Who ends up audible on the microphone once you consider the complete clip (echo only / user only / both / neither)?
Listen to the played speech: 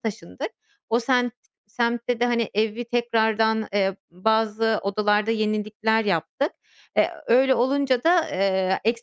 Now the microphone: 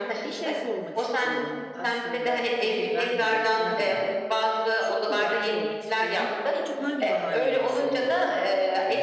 both